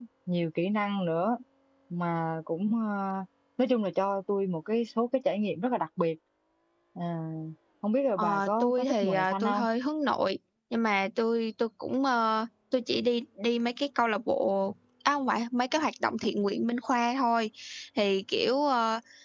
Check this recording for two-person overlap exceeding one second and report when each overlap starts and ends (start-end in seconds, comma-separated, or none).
8.2-9.6